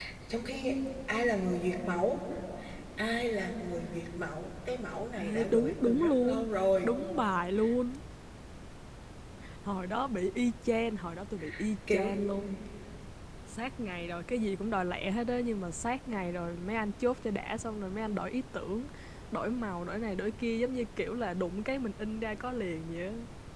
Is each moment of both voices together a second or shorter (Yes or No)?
No